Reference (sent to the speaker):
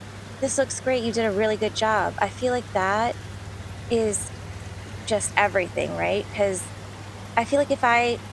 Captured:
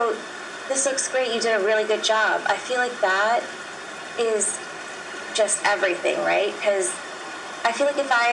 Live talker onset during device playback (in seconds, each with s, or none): none